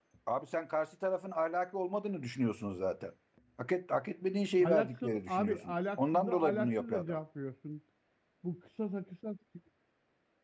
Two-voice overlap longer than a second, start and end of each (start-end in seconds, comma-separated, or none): 4.6-7.2